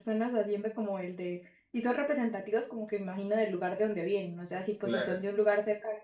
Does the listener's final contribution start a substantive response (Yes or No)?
No